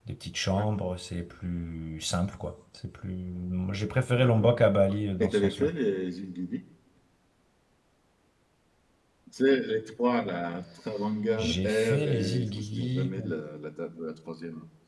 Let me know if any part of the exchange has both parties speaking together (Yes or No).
Yes